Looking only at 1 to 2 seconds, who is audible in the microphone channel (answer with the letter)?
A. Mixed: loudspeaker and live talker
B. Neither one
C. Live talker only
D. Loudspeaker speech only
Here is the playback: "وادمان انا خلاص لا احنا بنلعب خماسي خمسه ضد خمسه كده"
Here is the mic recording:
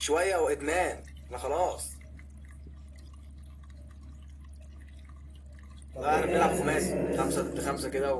D